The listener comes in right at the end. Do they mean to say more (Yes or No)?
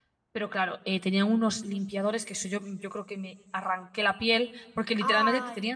No